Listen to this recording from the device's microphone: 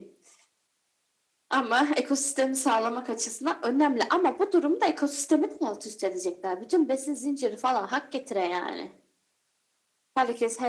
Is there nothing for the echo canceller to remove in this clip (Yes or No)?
No